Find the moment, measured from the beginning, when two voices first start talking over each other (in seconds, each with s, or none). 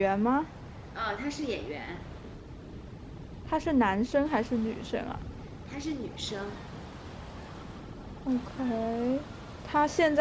none